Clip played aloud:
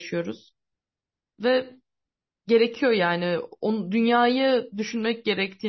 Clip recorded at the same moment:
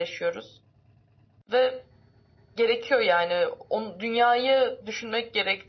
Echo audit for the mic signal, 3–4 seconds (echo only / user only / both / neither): echo only